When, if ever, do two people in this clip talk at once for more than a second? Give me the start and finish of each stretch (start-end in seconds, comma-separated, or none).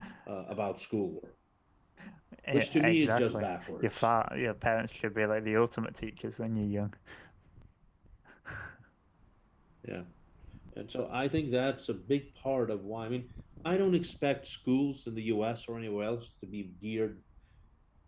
2.5-4.1